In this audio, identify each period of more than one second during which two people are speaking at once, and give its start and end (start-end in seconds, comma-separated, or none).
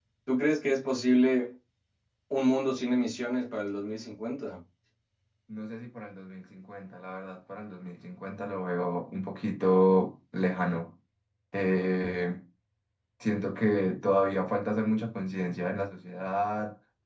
none